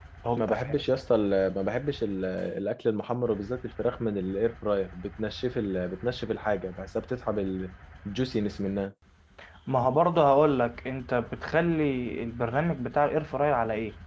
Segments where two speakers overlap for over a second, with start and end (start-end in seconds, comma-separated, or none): none